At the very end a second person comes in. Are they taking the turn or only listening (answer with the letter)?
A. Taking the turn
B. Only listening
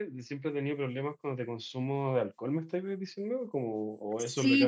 A